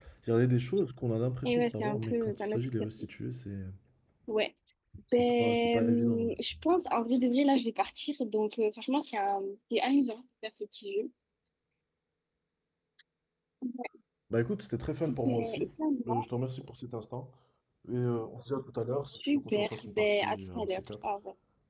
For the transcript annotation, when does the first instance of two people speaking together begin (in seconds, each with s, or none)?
1.4 s